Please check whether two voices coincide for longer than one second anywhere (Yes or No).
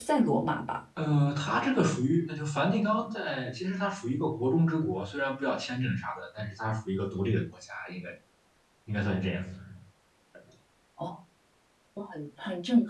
No